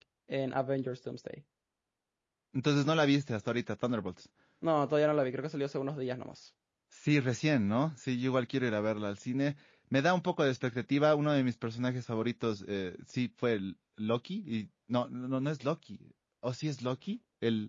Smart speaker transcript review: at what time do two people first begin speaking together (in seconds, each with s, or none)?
none